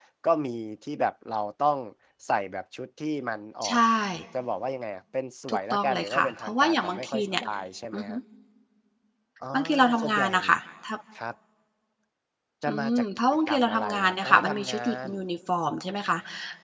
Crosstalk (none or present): present